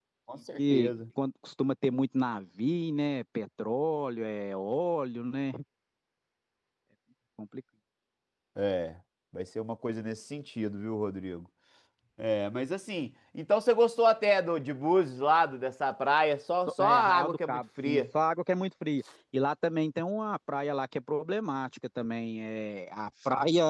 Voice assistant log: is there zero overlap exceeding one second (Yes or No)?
No